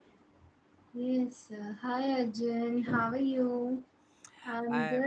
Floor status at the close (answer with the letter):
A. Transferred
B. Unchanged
B